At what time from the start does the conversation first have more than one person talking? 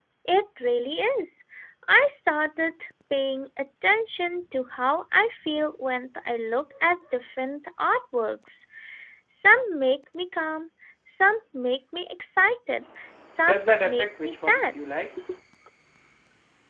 13 s

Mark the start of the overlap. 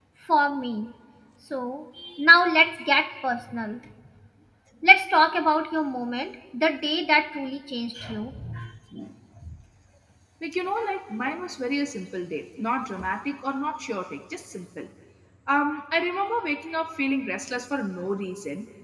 none

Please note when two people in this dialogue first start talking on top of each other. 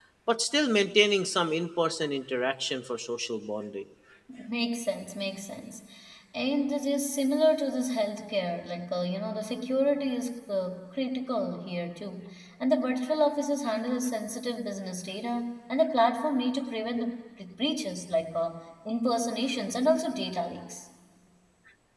none

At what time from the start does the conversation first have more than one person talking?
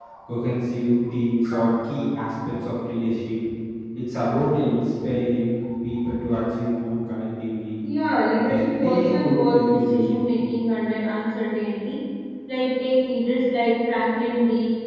8 s

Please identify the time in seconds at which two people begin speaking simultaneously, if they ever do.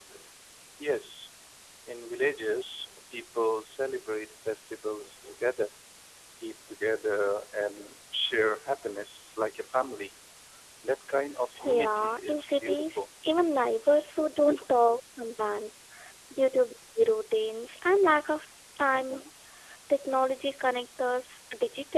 12 s

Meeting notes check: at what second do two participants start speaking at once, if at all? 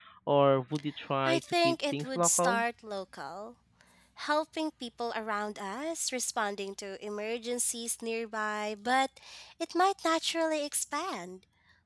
1 s

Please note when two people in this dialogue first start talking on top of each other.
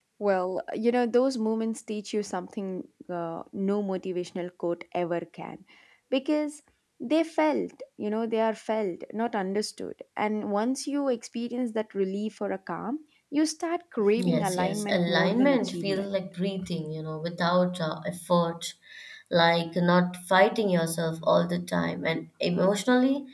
14 s

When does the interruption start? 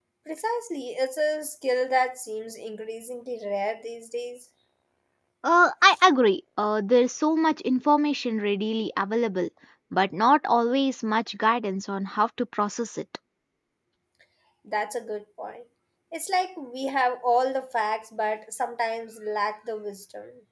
none

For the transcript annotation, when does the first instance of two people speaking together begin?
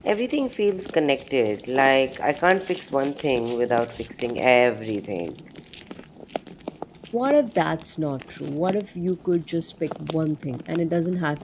none

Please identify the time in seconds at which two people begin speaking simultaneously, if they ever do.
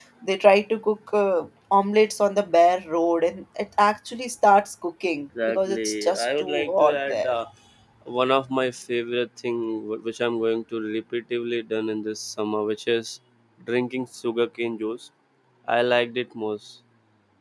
5 s

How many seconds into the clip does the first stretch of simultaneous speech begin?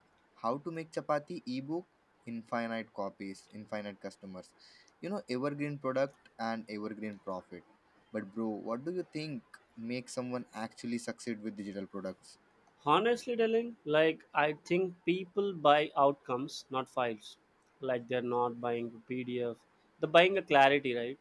none

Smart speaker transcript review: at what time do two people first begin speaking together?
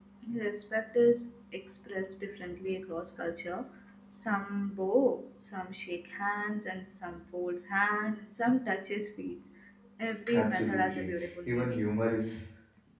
10 s

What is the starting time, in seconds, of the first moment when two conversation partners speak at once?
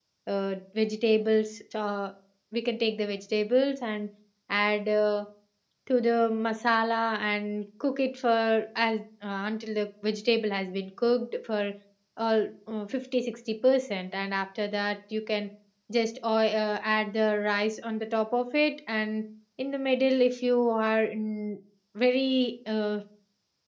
none

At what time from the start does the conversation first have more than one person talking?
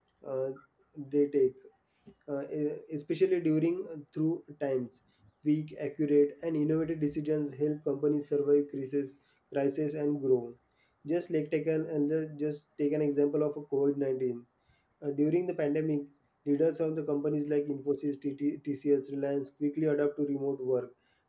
none

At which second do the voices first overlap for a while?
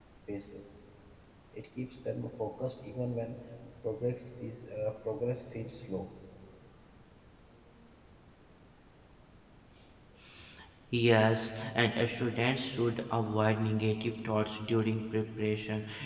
none

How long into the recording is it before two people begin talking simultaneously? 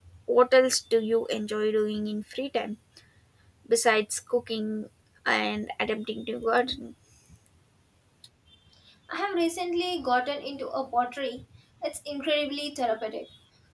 none

